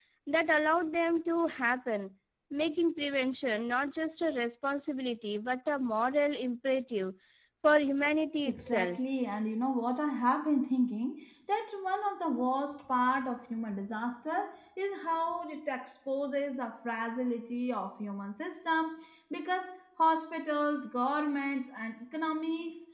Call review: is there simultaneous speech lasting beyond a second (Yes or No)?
No